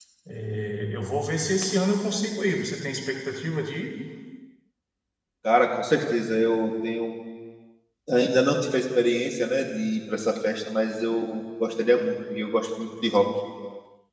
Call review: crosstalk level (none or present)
none